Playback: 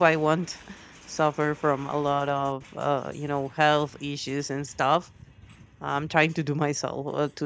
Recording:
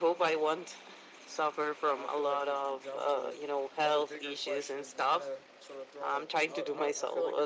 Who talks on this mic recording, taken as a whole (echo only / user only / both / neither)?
both